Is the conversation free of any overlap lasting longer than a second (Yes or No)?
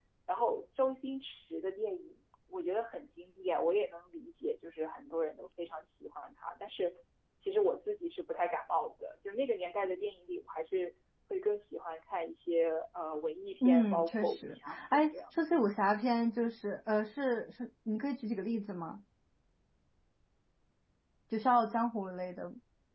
No